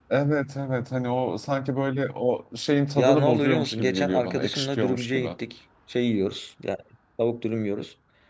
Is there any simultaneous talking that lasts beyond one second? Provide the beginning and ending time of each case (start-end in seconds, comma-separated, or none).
3.0-5.3